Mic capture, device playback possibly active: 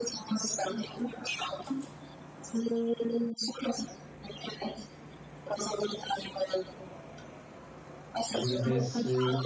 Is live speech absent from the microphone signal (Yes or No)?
No